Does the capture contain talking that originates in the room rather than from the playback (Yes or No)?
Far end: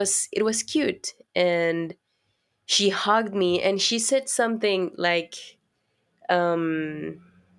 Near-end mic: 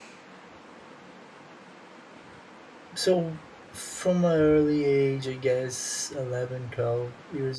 Yes